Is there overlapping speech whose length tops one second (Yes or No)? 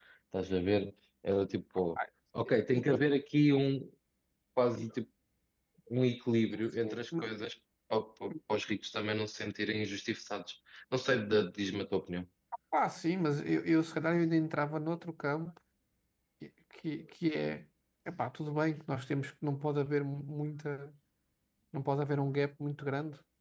No